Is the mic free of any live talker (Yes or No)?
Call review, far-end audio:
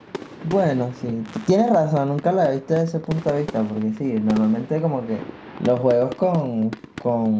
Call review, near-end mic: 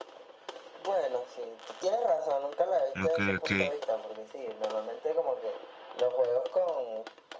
No